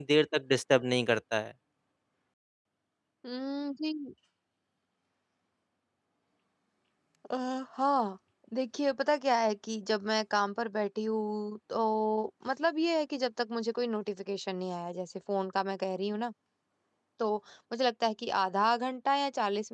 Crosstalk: none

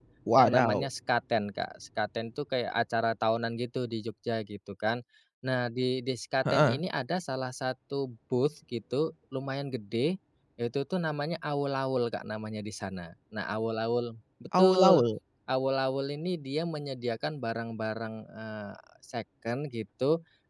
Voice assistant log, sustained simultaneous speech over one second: none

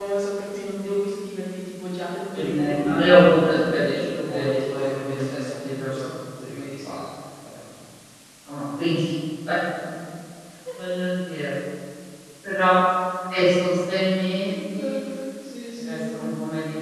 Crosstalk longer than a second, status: present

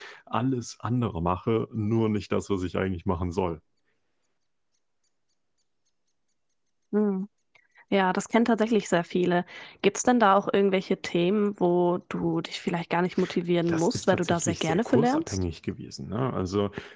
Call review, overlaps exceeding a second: present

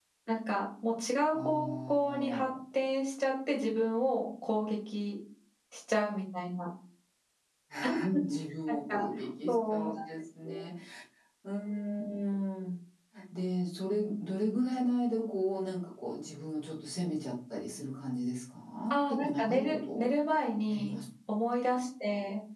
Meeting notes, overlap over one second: present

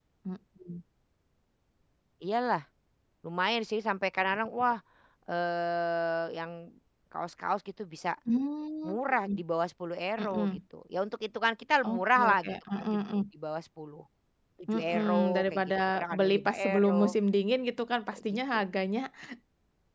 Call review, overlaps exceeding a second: present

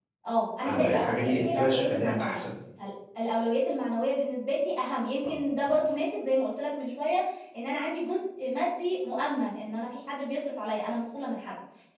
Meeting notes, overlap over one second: present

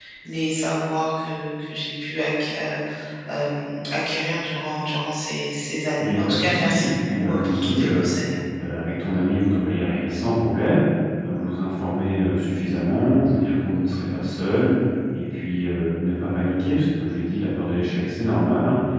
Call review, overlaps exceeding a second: present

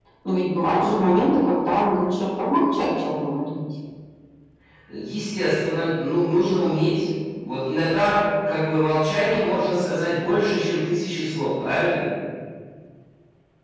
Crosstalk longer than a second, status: none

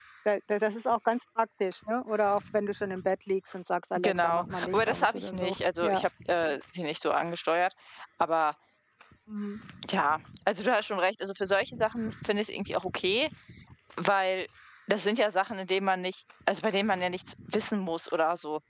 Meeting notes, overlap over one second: present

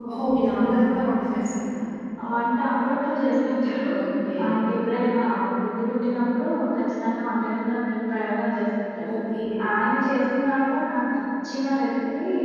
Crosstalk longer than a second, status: none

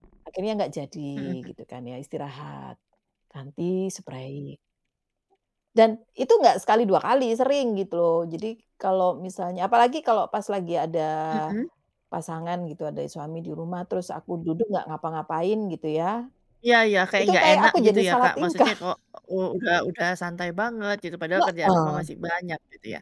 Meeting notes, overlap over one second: present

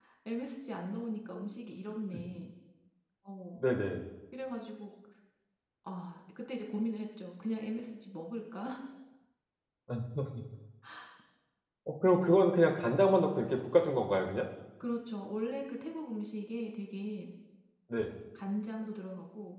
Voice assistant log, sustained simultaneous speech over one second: none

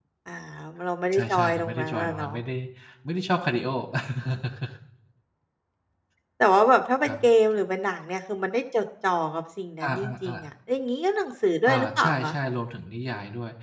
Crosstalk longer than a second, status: present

